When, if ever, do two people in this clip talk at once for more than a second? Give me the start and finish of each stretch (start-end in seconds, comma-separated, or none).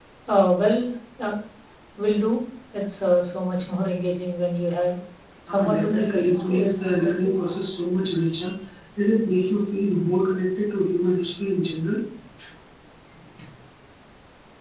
5.5-7.3